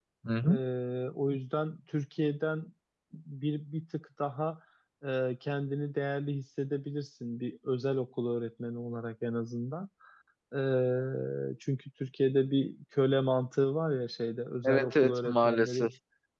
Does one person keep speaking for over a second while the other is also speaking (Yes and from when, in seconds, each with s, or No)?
Yes, from 14.6 s